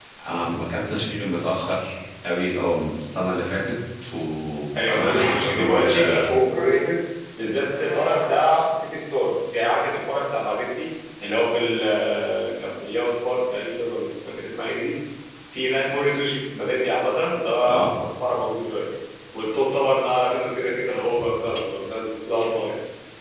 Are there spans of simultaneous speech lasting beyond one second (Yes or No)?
Yes